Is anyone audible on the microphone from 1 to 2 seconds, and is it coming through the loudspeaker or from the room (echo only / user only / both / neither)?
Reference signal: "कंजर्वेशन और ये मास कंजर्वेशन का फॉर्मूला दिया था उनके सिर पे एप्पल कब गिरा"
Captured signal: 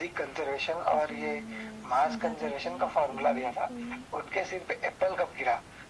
both